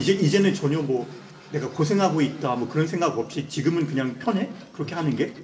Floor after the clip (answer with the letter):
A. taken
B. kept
A